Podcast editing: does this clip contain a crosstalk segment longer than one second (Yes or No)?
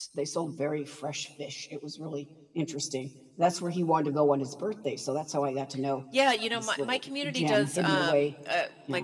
Yes